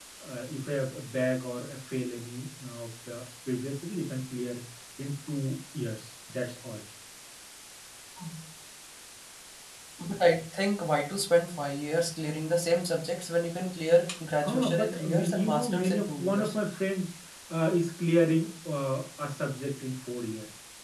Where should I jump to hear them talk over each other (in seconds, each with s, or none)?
14.4 s